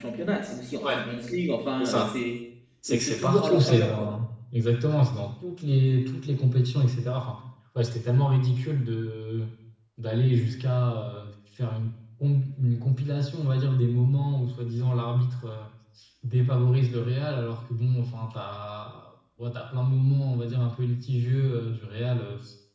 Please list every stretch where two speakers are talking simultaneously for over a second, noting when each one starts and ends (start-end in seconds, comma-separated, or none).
2.9-4.2